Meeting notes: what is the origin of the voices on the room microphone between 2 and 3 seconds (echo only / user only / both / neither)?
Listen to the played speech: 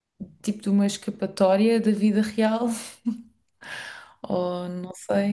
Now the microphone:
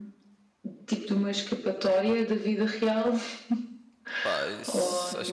echo only